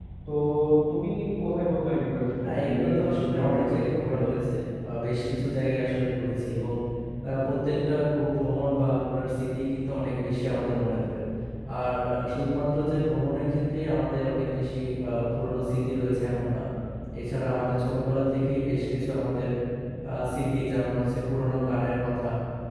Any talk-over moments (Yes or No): Yes